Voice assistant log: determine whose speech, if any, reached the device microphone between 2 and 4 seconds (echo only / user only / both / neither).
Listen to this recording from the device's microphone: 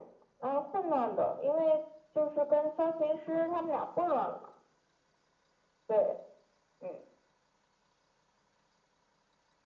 echo only